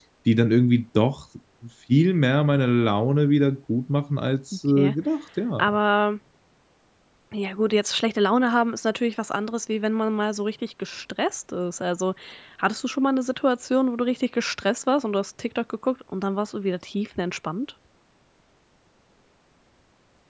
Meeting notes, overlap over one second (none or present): none